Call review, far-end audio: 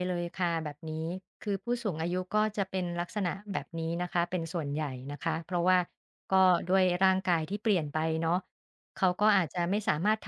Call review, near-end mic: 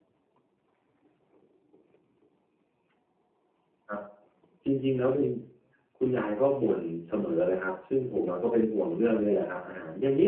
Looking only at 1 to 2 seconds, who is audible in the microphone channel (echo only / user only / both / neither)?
neither